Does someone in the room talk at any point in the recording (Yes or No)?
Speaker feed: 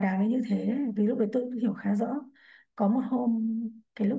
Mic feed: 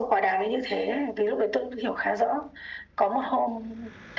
No